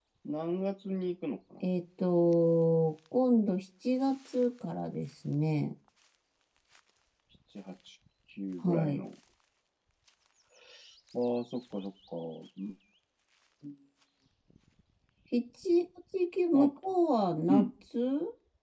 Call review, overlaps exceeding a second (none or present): none